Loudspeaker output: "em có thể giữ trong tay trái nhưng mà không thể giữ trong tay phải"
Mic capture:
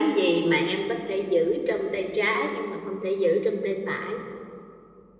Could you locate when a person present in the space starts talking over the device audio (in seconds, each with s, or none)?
none